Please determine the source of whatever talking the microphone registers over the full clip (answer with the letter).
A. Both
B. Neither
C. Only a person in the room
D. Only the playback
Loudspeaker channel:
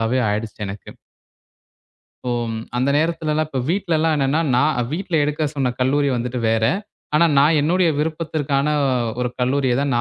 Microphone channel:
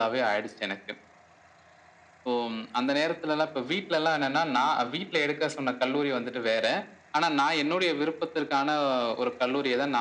D